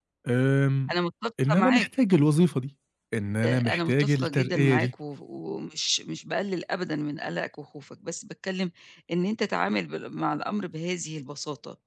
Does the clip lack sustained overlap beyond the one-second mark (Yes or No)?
No